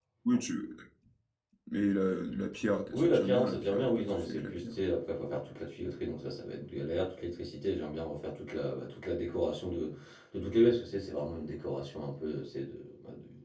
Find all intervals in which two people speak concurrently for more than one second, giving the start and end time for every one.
2.9-4.8

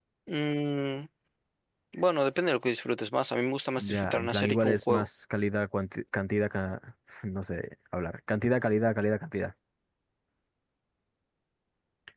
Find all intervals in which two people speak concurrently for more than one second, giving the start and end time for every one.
3.8-5.1

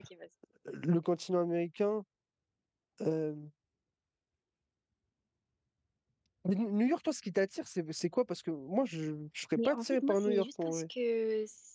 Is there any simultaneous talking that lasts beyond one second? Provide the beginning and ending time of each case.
9.6-10.8

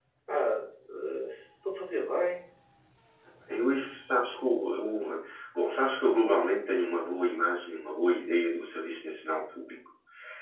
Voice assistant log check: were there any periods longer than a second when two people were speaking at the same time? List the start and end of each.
none

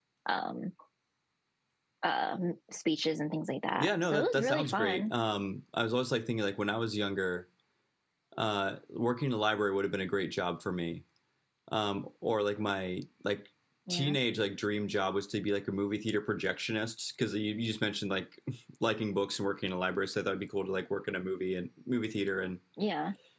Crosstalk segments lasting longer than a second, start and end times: 3.8-5.1

